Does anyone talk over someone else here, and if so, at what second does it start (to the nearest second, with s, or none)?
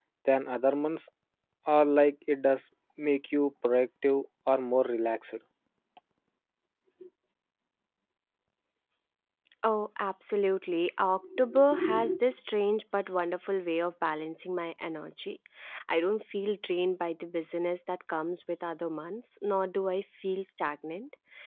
none